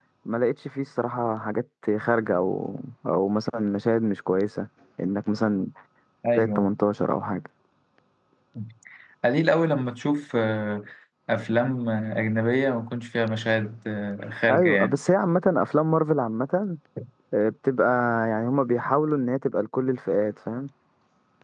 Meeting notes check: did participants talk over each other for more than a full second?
No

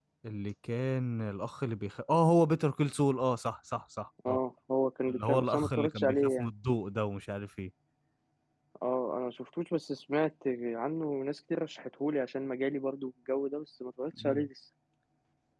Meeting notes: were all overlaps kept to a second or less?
No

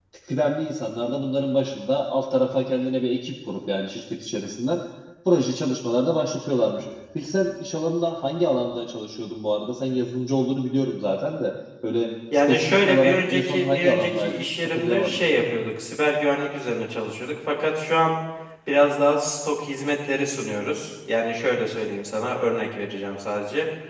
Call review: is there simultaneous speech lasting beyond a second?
Yes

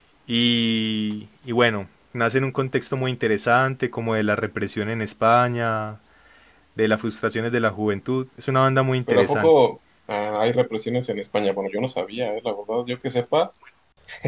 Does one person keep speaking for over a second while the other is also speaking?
No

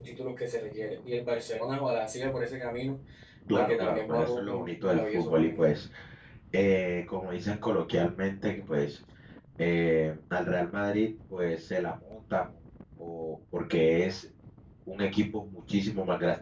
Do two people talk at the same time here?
Yes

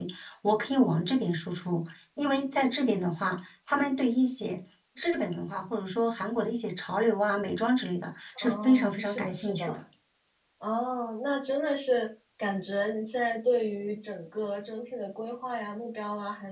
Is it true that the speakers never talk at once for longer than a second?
No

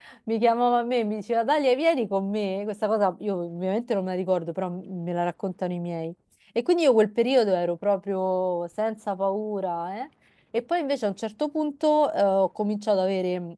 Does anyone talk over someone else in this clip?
No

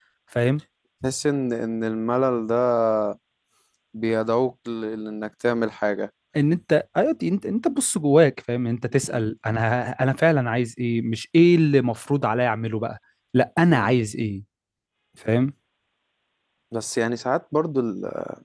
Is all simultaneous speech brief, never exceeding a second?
Yes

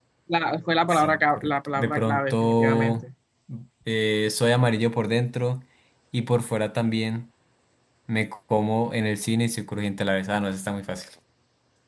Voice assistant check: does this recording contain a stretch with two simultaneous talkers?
Yes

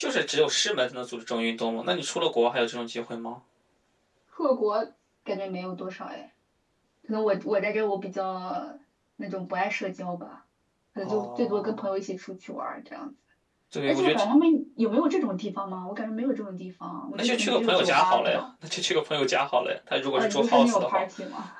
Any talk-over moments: Yes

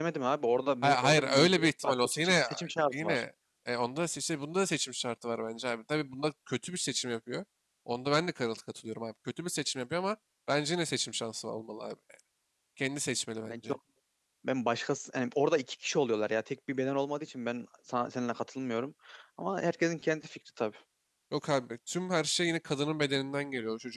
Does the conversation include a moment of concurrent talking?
Yes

